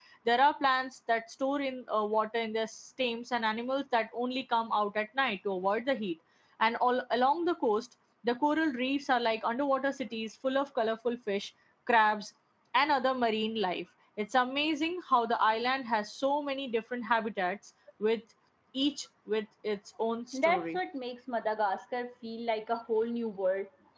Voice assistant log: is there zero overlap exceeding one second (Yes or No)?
Yes